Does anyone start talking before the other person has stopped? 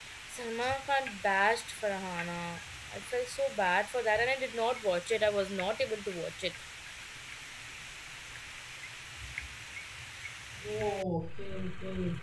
No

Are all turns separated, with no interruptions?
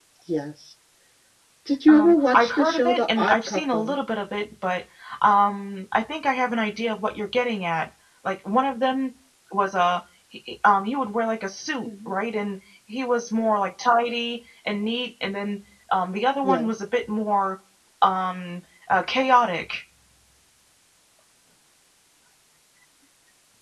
No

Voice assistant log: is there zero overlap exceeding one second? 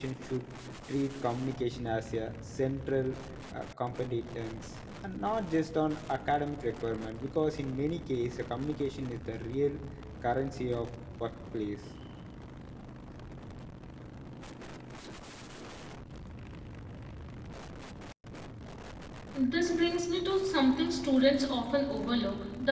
Yes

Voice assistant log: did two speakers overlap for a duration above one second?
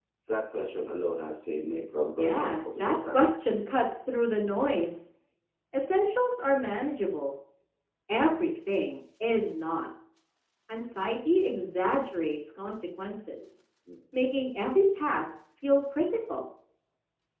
Yes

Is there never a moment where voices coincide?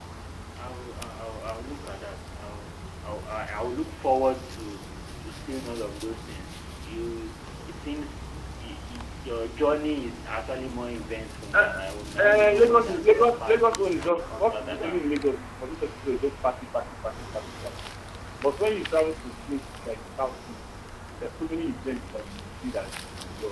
No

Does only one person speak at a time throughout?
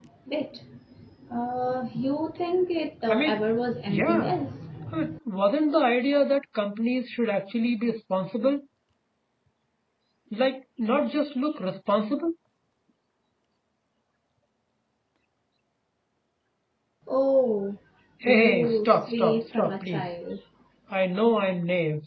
No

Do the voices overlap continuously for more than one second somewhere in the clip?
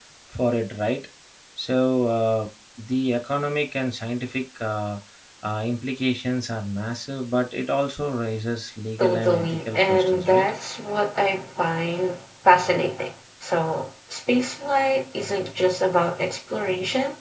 Yes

